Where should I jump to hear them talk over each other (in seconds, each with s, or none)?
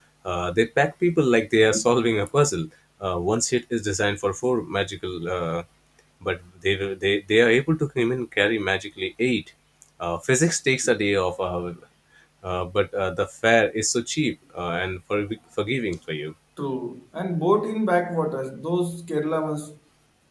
none